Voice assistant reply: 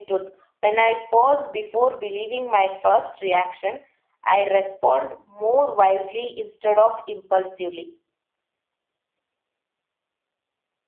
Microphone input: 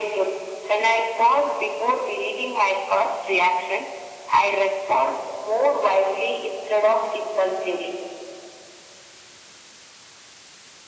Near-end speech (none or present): none